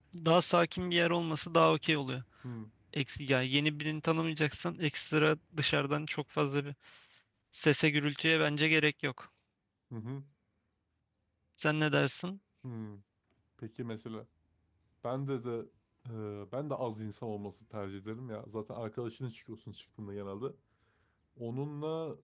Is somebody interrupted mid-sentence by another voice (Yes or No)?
No